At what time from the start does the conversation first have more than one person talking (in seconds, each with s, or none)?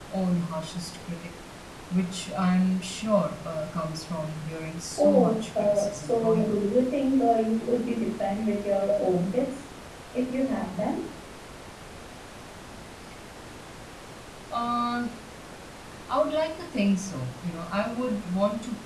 5.0 s